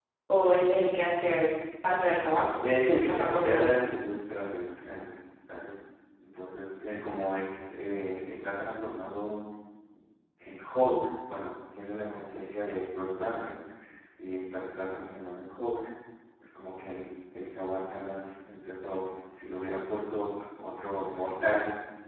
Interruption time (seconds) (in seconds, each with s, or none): 2.6 s